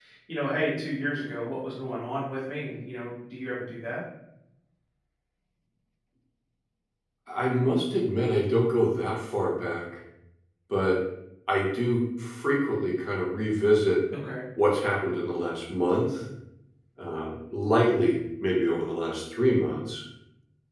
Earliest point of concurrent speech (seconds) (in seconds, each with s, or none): none